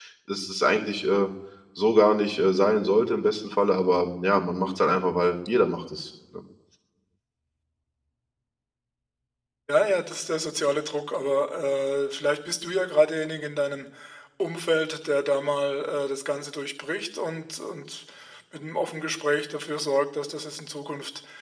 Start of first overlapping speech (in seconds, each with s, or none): none